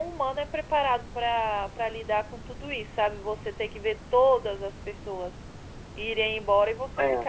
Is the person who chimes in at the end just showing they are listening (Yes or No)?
Yes